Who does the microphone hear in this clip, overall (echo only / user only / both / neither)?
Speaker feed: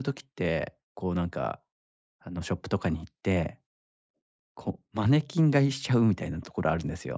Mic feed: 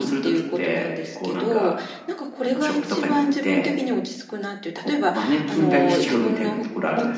both